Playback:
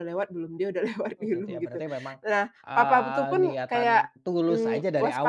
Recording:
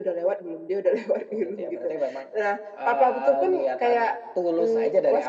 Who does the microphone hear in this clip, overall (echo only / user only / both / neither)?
echo only